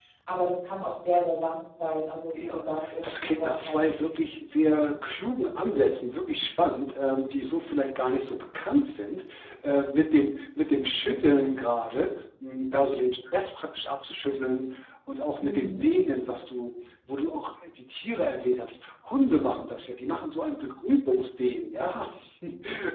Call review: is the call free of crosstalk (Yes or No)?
No